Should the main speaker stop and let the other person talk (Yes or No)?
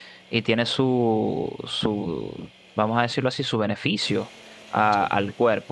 No